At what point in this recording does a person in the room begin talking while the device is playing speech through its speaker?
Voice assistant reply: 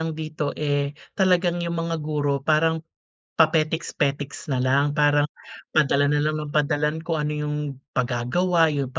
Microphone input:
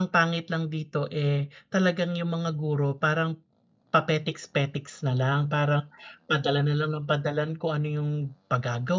none

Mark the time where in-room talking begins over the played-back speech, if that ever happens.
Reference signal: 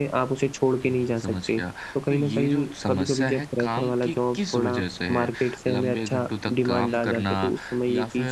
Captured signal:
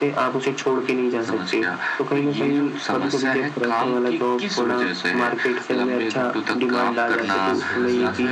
7.1 s

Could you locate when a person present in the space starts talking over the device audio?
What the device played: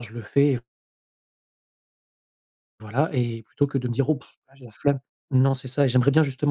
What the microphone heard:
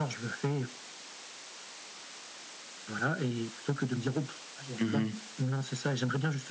4.8 s

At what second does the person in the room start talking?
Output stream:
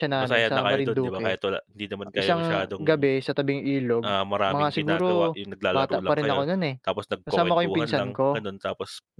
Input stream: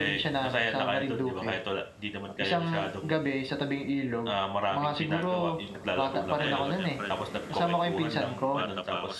6.4 s

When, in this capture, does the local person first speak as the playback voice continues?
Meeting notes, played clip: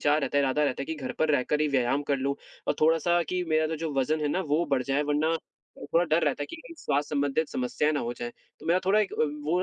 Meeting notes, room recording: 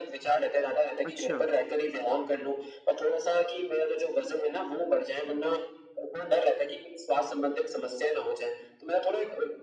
1.1 s

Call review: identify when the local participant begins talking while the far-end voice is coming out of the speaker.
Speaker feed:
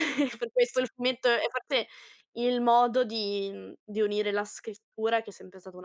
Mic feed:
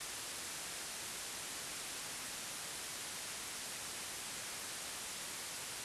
none

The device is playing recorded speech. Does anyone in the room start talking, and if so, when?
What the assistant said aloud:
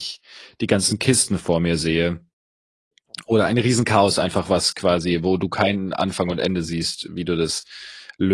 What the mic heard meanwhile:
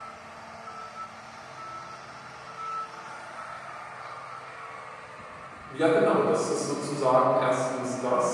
5.7 s

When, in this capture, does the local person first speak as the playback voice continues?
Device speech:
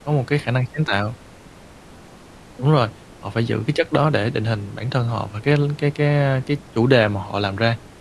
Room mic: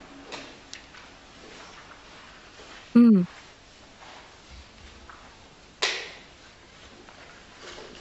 2.9 s

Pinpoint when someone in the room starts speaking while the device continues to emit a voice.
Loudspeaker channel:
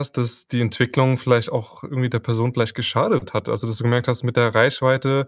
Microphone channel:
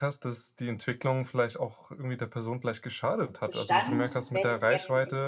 3.5 s

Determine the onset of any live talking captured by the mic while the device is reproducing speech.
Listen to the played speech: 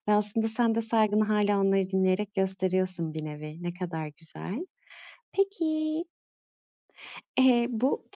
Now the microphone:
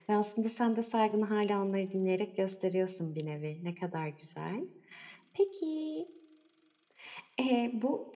none

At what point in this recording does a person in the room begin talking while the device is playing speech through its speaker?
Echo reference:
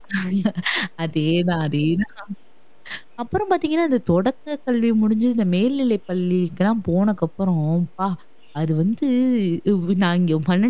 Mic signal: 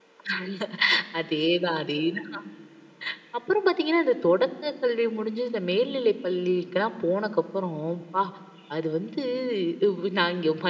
none

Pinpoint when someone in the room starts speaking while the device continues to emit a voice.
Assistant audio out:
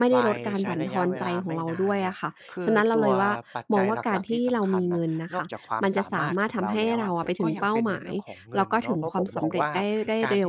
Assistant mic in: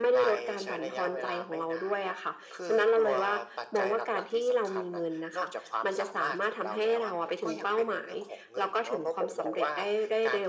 none

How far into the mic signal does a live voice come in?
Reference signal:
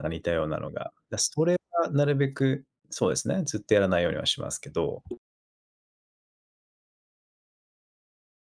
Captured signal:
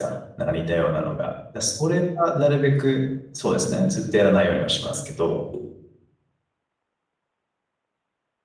none

